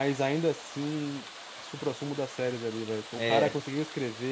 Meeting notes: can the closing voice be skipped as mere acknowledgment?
Yes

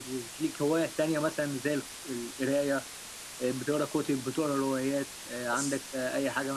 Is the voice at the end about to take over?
No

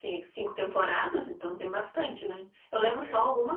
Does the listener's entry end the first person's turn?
No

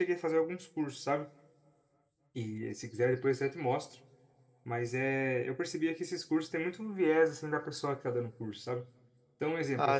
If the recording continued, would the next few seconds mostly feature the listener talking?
No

